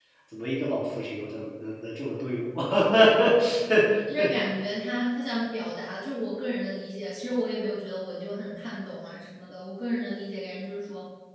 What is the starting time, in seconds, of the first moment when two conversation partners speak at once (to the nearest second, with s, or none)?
none